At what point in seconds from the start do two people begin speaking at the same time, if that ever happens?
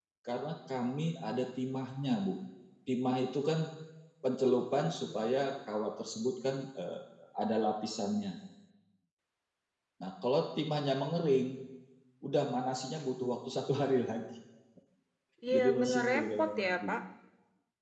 15.5 s

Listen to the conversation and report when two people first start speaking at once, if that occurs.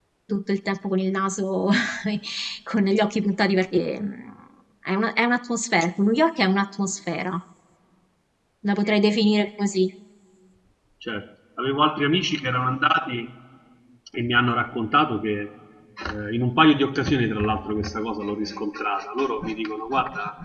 none

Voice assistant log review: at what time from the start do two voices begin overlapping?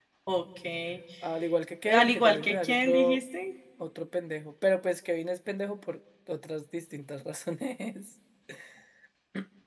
1.9 s

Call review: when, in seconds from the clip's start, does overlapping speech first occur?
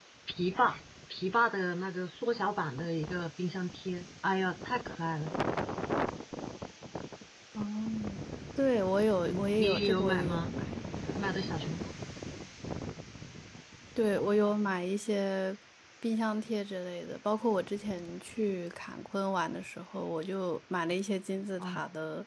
9.2 s

